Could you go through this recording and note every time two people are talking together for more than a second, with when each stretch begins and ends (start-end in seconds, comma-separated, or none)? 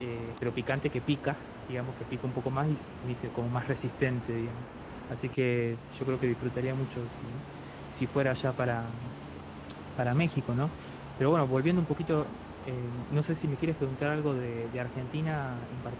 none